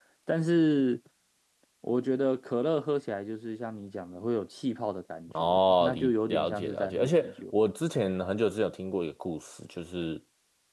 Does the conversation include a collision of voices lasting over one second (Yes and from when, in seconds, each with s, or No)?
Yes, from 5.3 s